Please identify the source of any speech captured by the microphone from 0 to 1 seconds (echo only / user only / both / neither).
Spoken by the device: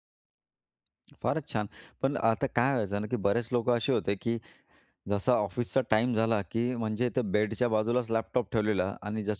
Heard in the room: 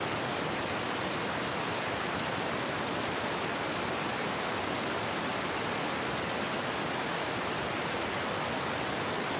neither